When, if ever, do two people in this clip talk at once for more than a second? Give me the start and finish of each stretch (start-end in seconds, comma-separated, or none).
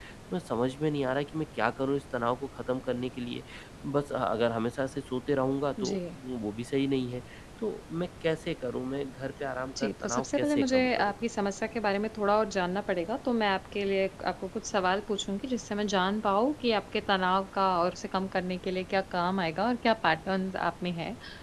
9.8-11.1